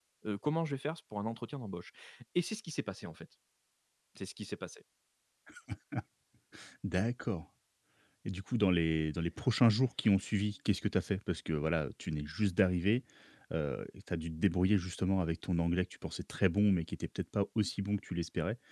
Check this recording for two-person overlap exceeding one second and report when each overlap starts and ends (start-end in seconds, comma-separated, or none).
none